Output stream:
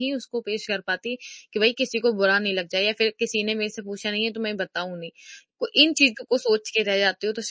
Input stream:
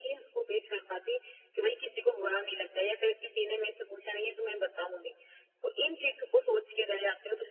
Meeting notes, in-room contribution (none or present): none